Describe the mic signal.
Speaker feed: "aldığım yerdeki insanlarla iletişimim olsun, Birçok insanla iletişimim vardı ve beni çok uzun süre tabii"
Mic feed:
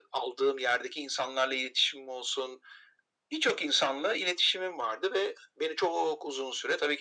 echo only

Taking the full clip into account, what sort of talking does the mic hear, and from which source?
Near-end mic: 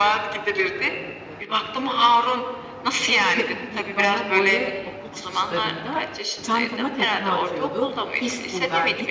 both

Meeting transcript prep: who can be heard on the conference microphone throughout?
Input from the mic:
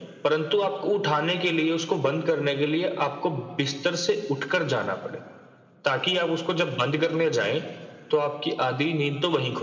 echo only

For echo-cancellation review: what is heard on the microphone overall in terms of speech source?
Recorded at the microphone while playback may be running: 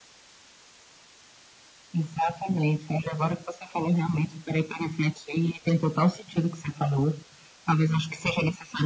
echo only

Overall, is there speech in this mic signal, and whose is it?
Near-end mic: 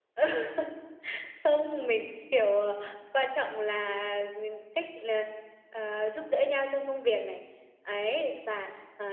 echo only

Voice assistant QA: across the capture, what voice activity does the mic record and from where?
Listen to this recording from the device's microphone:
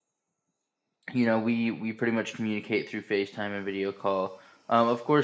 user only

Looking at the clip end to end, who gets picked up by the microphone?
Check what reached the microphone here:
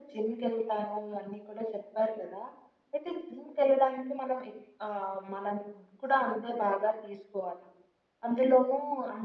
echo only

